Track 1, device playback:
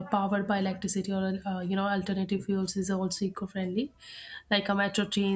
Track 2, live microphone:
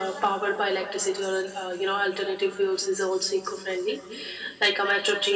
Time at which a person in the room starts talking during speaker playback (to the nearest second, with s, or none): none